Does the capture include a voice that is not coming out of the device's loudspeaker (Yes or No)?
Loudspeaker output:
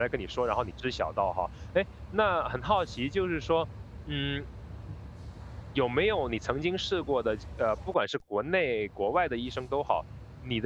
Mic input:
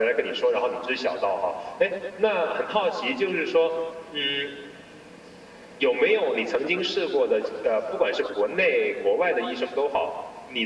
No